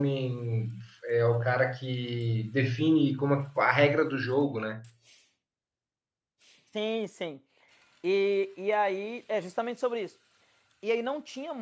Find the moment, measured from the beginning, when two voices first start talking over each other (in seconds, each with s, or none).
none